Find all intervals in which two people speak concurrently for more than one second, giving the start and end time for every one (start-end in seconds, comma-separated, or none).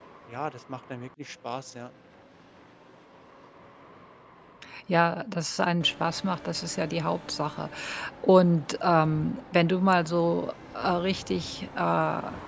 none